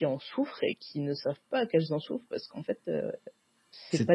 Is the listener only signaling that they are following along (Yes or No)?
No